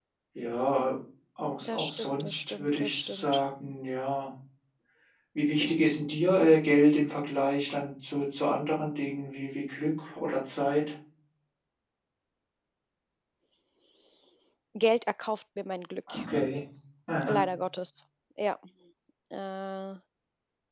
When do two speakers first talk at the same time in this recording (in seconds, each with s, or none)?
1.6 s